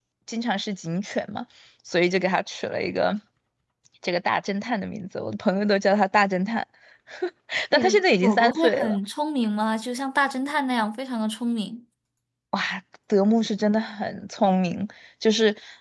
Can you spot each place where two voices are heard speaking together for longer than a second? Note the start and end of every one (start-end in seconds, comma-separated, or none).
7.7-9.0